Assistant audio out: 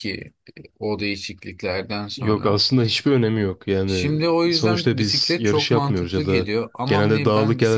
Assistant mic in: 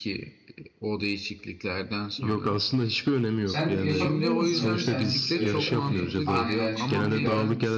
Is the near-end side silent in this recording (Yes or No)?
No